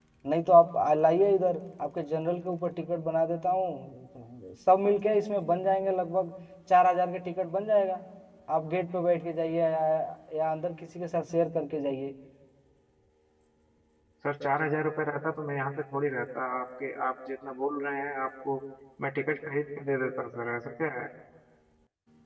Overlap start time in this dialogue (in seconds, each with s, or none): none